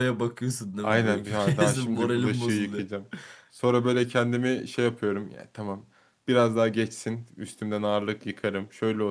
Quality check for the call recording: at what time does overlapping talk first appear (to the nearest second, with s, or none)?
1 s